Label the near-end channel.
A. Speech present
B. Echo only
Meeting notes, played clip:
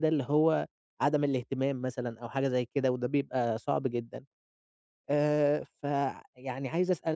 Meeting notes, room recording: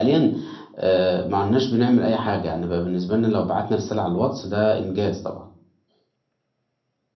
A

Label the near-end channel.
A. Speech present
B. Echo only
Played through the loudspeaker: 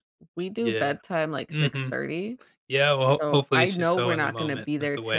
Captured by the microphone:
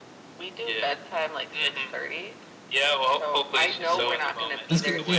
A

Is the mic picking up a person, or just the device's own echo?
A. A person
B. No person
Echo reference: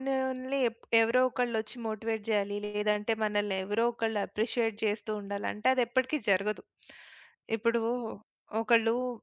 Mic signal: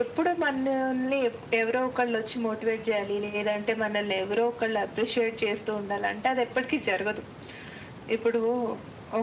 B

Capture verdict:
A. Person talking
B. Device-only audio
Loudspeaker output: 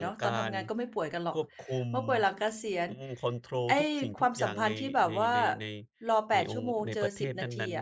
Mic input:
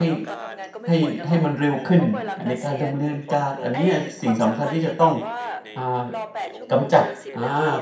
A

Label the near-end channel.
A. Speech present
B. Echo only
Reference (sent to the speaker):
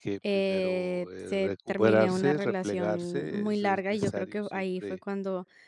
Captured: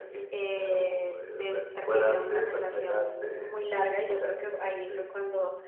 B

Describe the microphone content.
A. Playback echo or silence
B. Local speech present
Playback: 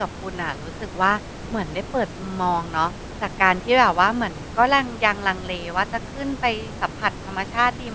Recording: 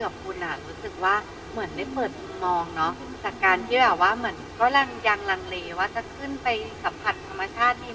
B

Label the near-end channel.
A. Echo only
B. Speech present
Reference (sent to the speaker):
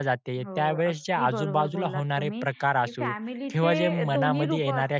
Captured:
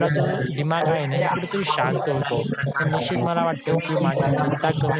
B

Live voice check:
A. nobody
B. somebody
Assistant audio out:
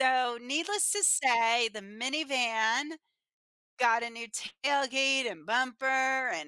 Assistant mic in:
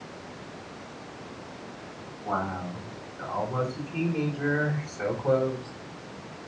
B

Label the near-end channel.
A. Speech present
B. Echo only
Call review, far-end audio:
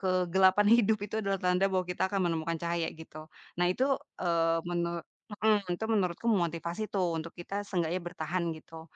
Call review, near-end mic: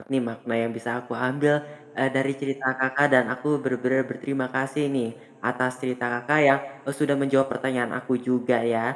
A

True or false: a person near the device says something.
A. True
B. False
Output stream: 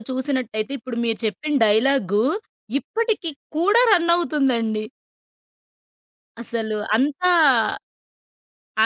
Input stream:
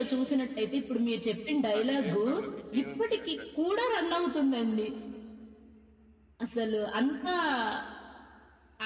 A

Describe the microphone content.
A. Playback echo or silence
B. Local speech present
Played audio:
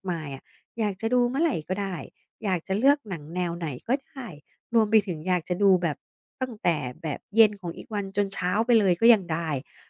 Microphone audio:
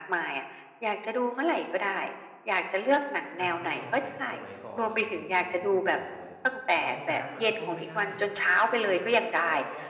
B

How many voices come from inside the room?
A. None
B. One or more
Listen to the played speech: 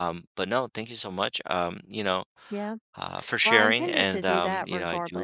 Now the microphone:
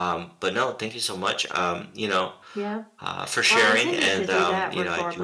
A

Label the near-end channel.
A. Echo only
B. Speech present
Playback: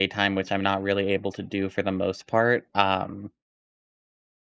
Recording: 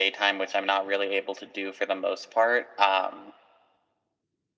A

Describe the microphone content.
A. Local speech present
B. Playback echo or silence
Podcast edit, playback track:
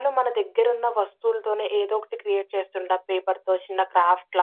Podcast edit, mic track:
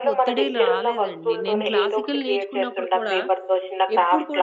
A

